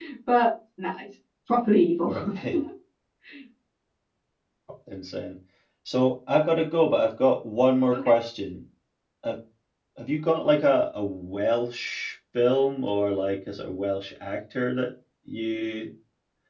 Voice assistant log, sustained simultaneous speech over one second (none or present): none